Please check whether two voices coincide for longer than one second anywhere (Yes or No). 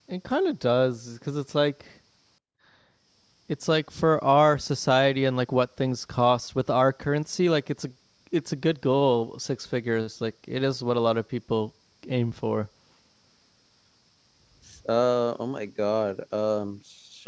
No